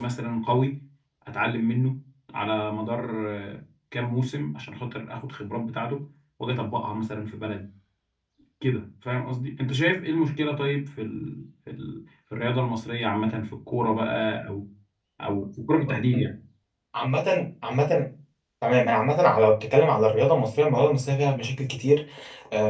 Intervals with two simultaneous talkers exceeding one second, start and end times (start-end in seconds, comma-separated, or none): none